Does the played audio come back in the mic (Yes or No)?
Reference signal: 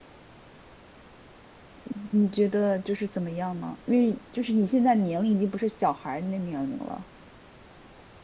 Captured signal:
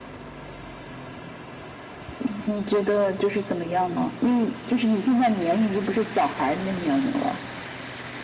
Yes